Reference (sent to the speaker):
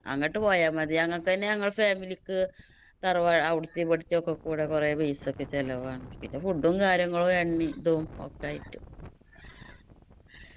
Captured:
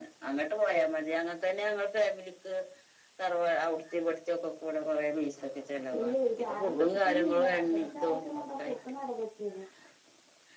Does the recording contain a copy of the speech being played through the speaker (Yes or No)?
Yes